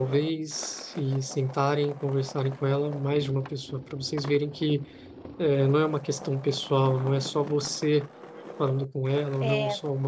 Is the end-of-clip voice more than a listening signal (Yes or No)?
No